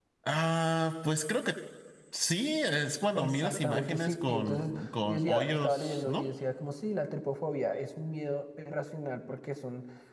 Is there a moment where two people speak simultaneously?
Yes, from 3.2 s

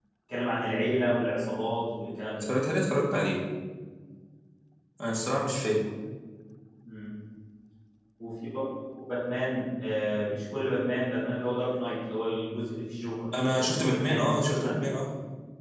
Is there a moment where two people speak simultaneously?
Yes, from 13.3 s

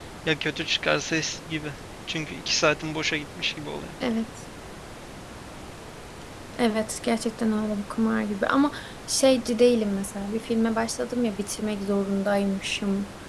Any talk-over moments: No

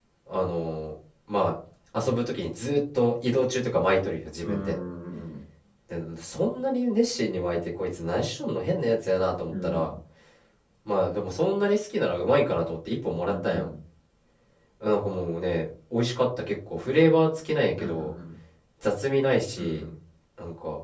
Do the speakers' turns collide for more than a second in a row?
No

